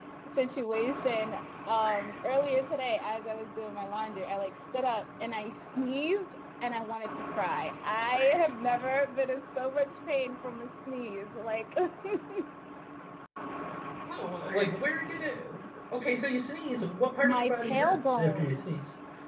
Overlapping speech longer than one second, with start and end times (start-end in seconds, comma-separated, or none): 17.2-18.6